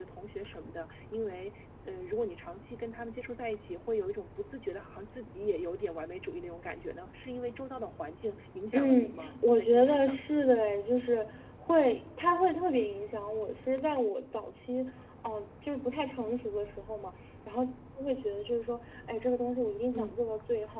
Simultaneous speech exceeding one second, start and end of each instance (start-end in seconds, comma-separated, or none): 8.7-10.2